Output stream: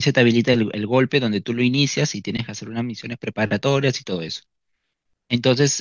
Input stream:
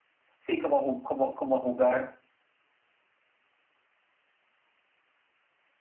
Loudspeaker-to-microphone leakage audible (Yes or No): No